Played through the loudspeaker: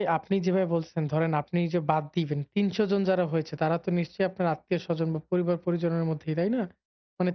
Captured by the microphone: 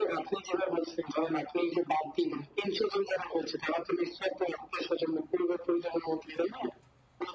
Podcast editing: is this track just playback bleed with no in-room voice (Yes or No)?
Yes